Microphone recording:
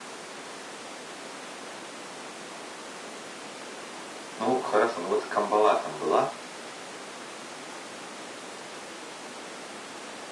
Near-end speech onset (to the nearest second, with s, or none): 4 s